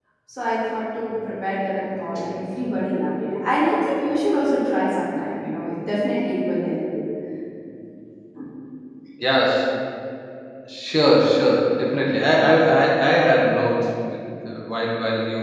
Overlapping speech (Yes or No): No